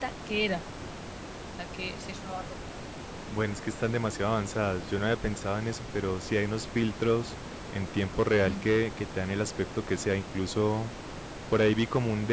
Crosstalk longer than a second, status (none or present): none